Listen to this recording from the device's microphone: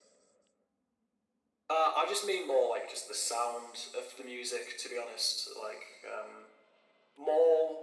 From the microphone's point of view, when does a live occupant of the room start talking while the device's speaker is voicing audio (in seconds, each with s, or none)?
none